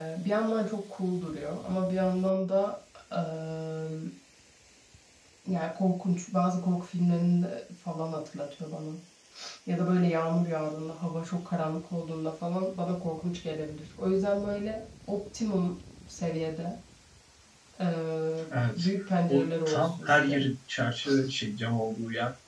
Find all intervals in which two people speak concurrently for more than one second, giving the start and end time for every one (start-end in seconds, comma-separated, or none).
18.8-20.5